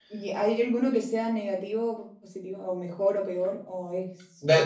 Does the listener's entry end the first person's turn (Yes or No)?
Yes